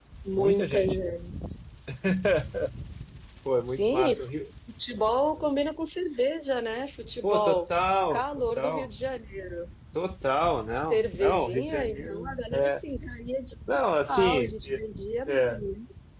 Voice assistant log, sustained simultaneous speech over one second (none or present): present